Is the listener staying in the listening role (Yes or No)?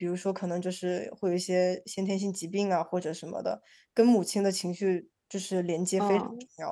No